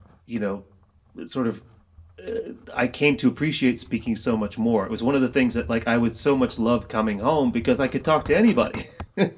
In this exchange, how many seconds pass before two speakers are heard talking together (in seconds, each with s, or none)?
none